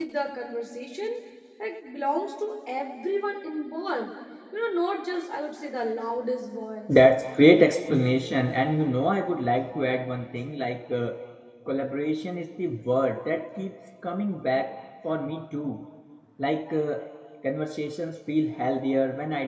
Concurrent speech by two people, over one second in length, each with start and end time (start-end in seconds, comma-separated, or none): none